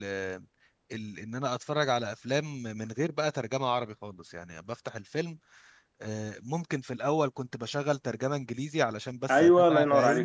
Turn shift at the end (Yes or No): Yes